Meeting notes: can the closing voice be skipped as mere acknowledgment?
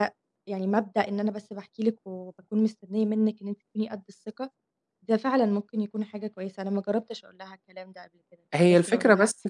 No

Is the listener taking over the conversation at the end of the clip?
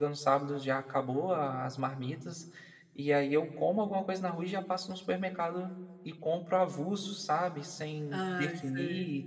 No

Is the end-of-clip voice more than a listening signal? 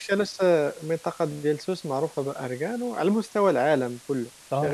Yes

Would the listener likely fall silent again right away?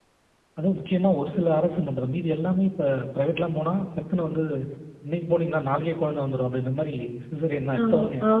No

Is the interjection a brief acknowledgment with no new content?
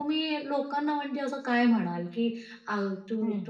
Yes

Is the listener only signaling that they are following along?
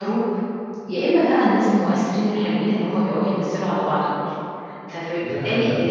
No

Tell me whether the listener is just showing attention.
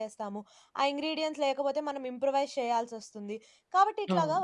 Yes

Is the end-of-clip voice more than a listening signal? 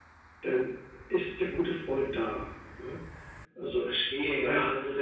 Yes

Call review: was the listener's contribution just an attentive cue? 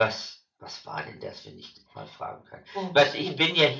Yes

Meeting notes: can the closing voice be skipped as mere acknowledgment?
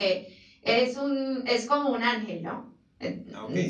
No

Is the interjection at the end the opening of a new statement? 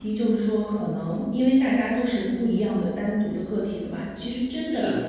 No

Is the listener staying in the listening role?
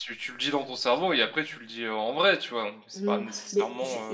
No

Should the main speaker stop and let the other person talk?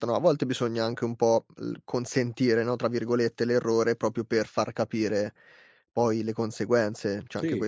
No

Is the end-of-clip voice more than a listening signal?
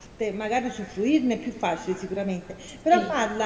No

